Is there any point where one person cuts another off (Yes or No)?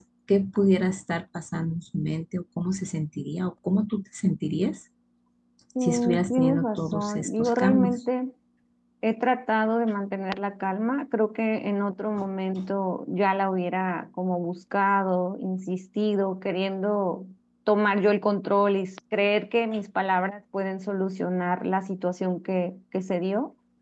Yes